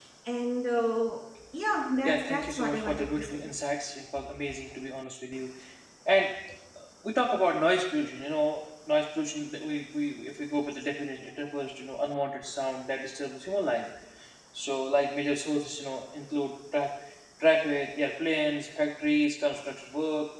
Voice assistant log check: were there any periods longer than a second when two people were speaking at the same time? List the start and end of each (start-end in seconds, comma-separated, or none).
2.0-3.4